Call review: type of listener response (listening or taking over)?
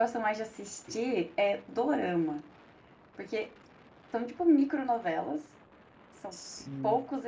listening